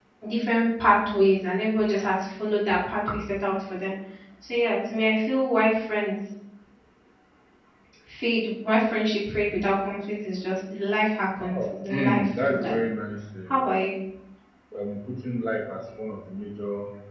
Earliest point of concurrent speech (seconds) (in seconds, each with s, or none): 11.3 s